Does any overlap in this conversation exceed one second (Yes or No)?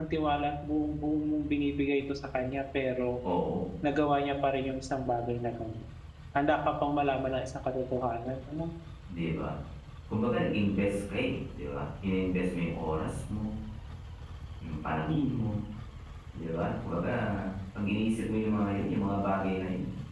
No